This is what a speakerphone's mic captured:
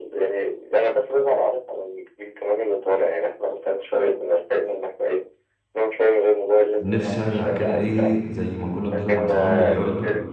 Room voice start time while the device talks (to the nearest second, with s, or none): 7 s